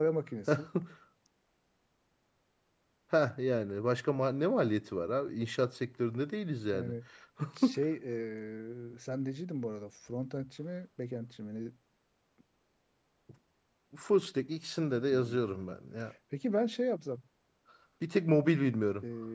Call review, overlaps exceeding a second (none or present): none